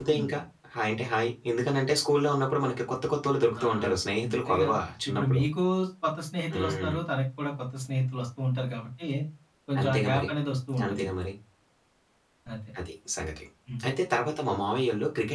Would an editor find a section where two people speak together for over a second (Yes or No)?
No